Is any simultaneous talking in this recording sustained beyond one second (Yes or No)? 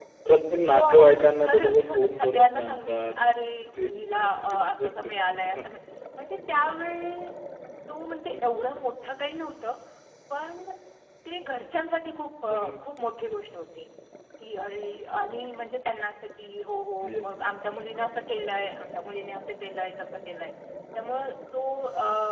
Yes